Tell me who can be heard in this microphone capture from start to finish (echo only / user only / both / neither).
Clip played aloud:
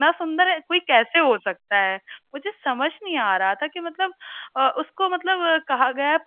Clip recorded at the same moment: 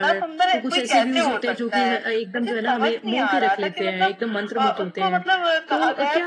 both